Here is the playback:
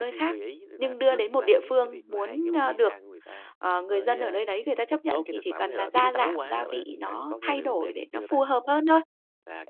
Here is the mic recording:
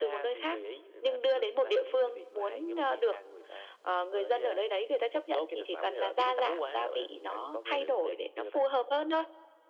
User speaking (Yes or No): No